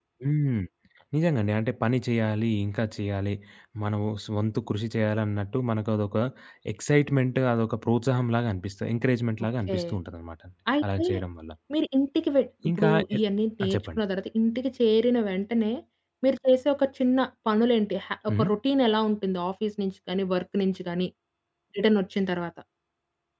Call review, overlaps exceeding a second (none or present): none